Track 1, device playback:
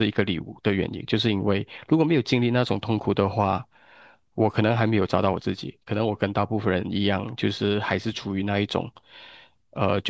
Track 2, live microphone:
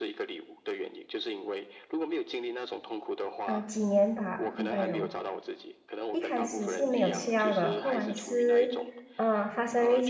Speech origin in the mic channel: both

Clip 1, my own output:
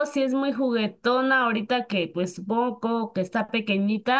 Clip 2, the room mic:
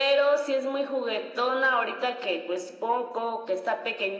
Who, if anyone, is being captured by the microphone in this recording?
echo only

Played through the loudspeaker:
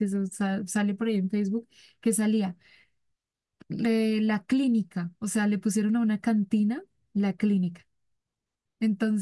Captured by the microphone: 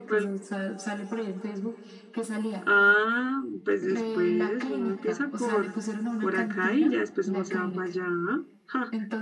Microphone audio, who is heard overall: both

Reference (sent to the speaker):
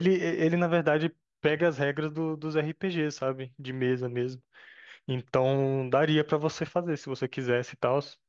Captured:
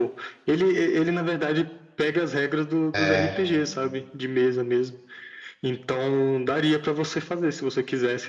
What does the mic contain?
both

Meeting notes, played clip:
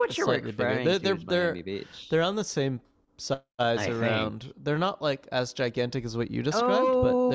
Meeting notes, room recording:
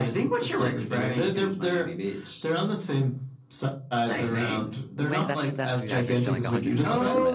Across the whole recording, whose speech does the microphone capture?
both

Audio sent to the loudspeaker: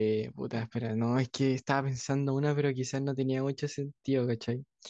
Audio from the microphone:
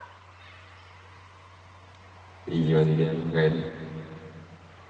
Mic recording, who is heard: user only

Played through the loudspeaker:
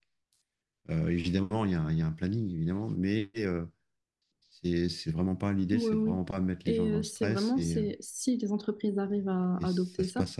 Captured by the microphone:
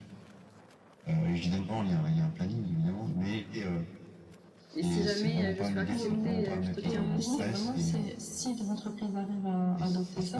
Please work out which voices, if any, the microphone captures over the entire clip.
both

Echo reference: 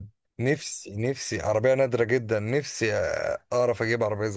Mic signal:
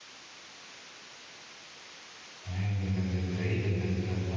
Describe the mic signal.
user only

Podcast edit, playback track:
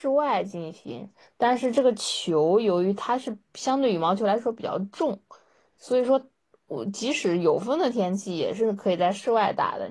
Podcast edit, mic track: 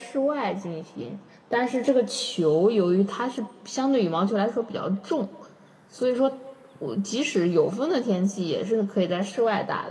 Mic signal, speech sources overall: echo only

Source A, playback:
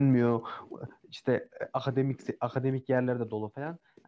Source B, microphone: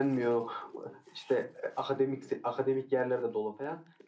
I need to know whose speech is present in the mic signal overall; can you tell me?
echo only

